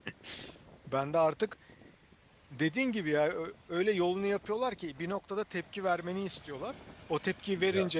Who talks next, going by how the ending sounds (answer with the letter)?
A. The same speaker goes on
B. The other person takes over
A